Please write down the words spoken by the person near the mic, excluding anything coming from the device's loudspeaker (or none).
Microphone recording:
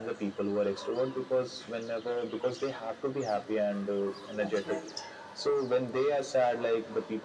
that's right